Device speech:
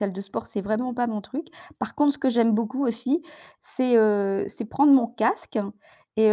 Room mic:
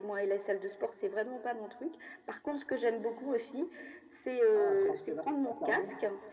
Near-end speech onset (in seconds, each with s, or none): 4.5 s